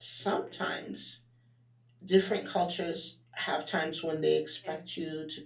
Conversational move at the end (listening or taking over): listening